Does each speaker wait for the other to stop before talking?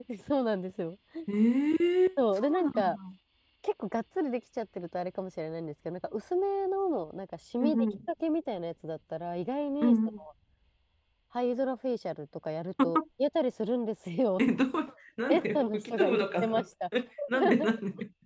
No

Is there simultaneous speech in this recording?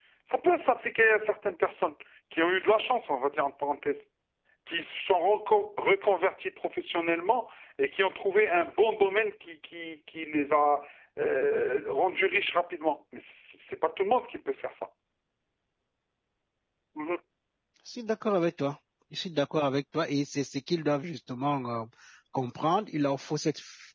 No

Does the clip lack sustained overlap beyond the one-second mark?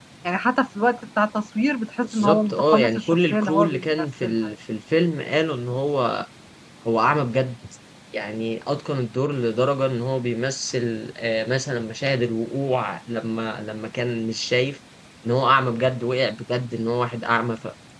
No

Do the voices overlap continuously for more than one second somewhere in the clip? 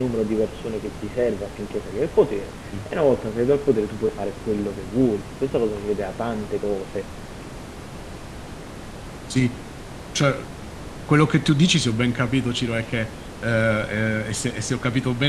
No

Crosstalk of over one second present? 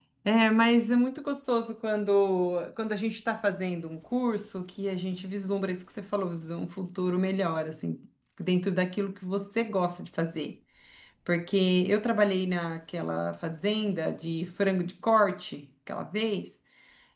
No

